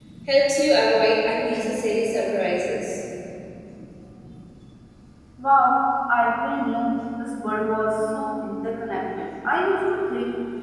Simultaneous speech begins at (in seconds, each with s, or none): none